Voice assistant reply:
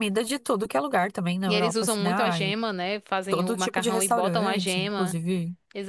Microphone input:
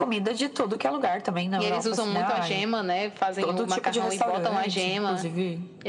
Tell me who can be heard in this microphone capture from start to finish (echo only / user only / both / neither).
echo only